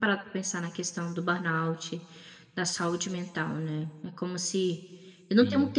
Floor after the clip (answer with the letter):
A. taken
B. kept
B